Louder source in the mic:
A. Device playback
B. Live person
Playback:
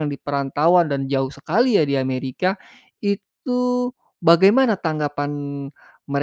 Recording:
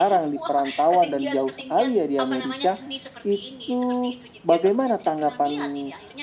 A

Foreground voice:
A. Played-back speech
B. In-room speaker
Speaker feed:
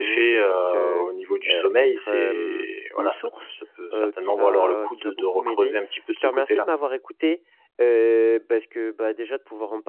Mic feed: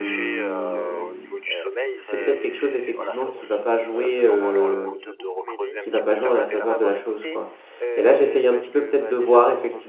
B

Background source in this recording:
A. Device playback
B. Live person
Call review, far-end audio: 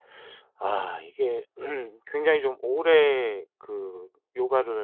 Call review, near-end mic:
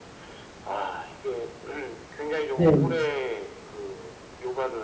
A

